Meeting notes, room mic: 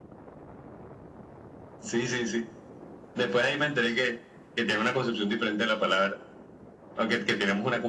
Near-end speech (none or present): none